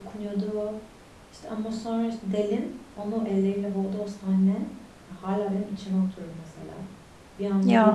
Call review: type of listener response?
listening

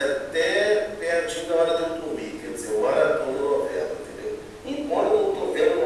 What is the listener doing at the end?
listening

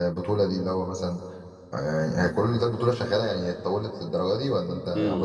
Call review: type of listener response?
taking over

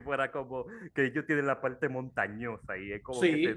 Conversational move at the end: taking over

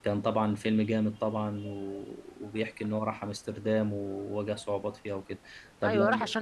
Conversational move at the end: taking over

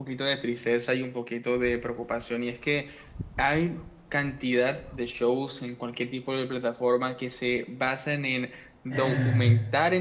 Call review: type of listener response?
listening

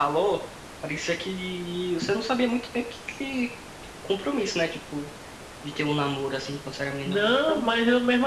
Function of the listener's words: taking over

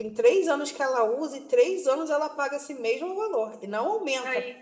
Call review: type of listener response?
listening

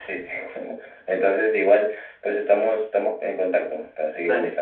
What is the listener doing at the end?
taking over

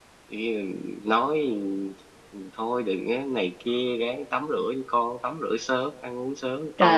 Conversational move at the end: taking over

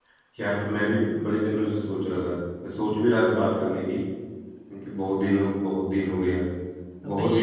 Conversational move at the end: listening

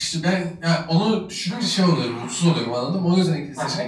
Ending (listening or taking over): taking over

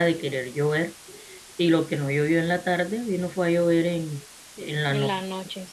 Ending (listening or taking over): taking over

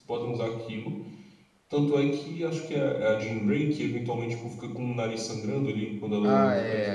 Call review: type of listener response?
taking over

